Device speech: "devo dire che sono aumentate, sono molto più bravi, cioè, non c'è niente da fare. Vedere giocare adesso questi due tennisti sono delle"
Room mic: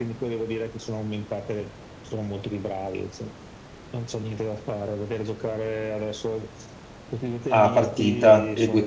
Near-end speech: present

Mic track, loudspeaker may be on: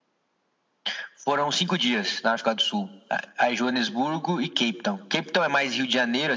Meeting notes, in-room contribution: none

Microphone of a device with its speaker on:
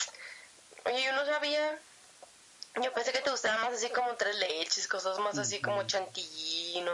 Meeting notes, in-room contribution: present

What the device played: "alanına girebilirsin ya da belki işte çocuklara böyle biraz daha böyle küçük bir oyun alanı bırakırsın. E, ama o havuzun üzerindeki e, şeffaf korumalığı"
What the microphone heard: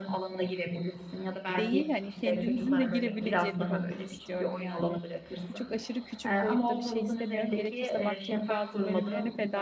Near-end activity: present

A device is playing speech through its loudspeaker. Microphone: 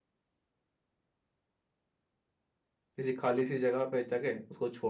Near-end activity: present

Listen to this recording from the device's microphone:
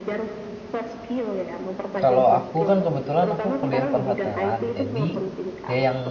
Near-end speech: present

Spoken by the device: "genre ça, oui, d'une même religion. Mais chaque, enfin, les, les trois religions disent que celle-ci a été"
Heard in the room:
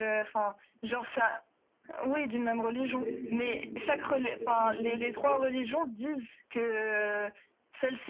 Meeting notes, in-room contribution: present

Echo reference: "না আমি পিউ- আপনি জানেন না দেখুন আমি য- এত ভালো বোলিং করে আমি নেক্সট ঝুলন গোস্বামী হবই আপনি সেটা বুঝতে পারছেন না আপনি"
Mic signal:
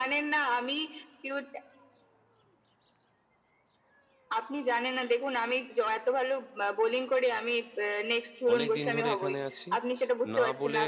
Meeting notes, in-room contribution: present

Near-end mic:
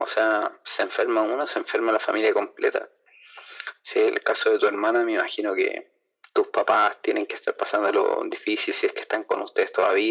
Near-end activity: none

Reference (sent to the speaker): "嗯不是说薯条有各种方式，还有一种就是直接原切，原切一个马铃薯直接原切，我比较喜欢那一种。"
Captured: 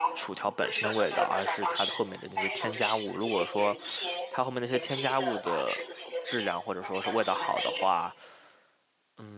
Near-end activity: present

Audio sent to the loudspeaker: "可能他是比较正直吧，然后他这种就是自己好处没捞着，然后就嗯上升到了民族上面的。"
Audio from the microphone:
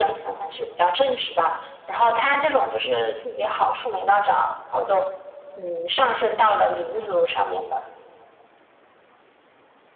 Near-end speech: none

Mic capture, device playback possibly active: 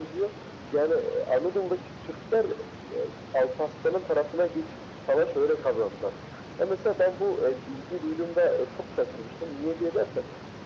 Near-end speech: none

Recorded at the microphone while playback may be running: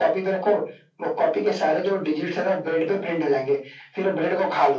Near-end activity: none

